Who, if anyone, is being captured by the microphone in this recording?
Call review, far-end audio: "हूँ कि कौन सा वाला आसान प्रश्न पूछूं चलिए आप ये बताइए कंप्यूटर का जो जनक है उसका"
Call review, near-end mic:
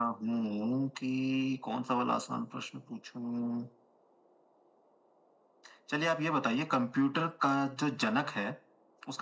echo only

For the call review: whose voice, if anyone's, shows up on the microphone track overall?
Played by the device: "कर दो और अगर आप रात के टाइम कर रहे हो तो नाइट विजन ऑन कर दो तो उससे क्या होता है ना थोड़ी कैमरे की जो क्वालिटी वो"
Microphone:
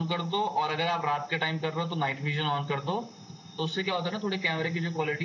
echo only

